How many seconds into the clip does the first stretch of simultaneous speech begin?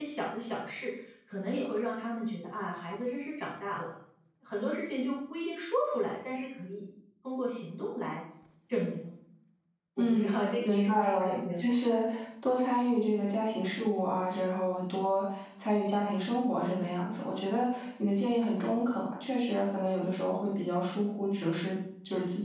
10.0 s

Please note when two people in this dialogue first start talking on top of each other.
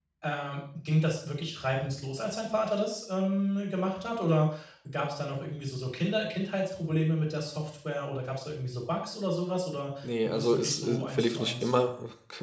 10.0 s

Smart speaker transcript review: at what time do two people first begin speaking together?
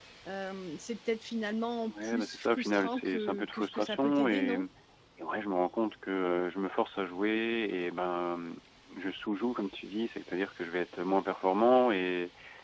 1.8 s

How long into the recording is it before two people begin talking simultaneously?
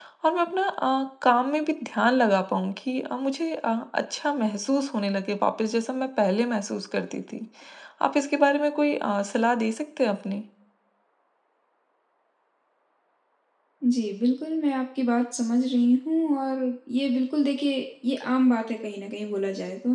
none

